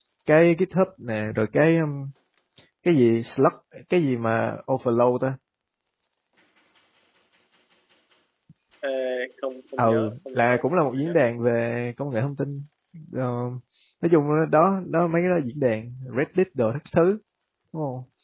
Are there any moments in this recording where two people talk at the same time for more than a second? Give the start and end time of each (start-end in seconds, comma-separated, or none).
9.8-11.1